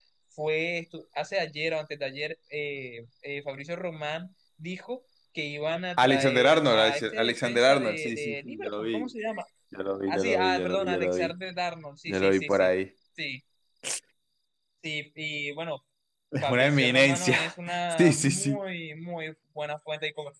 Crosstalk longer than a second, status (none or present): present